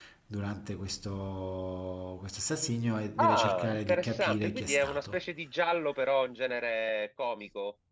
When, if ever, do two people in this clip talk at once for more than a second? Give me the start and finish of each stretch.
3.2-5.2

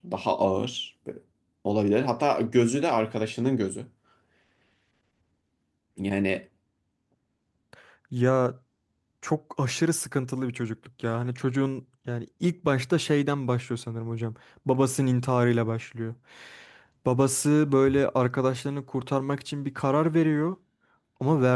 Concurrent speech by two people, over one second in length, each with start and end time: none

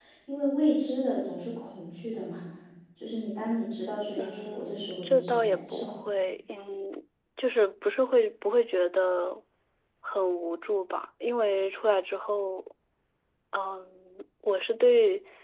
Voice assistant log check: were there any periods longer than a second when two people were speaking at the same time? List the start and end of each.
4.2-5.9

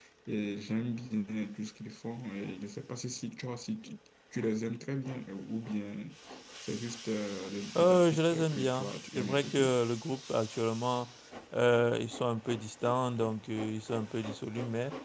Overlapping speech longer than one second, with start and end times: 7.8-9.7

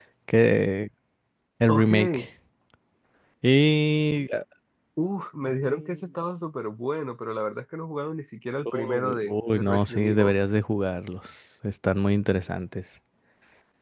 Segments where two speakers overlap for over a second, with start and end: 8.6-10.3

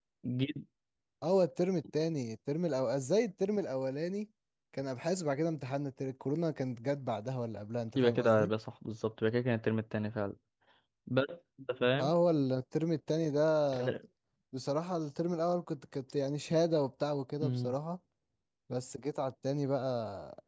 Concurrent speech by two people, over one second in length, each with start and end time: none

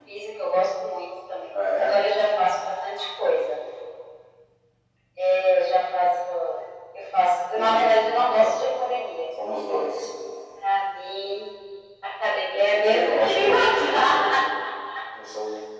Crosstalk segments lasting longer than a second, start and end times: 12.5-14.4

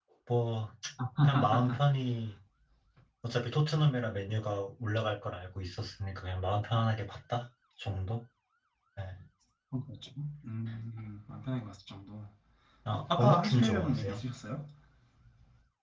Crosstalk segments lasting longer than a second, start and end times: 12.9-14.2

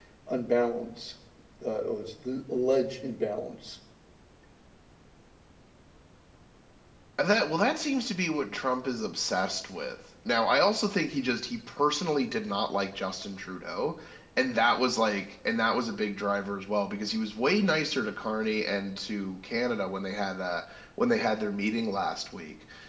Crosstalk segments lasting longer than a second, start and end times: none

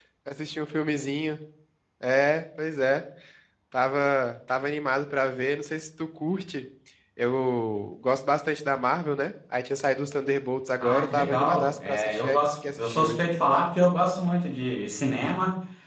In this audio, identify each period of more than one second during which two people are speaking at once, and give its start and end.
10.8-13.2

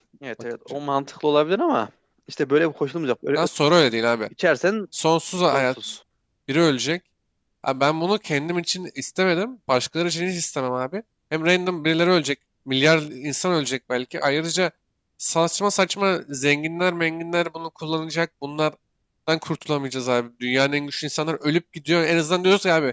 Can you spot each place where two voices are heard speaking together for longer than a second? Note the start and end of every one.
none

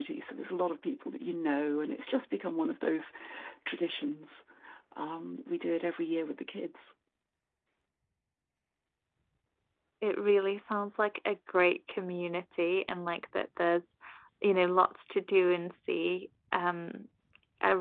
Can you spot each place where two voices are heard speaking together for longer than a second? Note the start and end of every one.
none

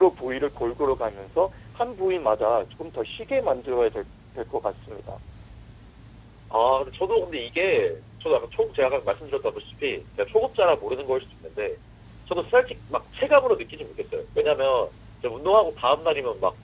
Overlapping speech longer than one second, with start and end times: none

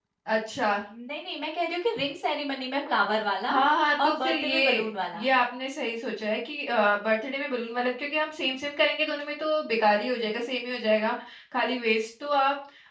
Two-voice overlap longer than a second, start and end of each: 4.0-5.2

